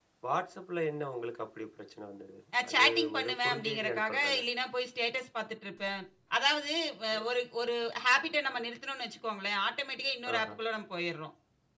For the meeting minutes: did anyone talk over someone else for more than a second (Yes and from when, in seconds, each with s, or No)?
Yes, from 2.6 s